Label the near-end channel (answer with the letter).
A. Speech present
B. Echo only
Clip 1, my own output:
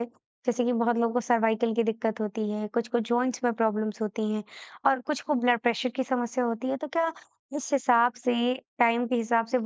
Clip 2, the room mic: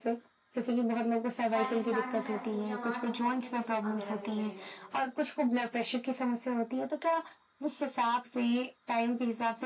A